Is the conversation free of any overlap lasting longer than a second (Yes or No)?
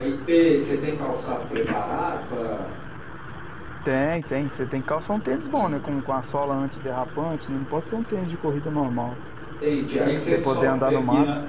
No